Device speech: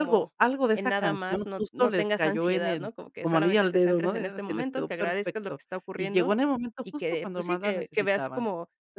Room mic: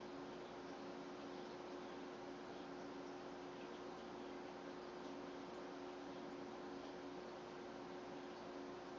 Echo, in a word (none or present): none